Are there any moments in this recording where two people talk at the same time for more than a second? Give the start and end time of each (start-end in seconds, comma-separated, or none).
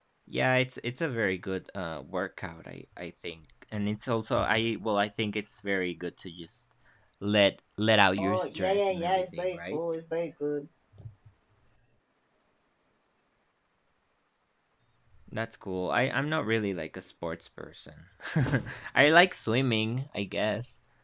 8.2-9.8